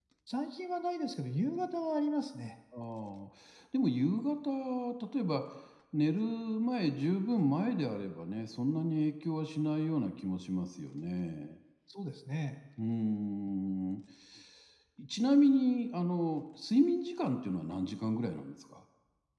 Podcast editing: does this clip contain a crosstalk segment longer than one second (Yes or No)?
No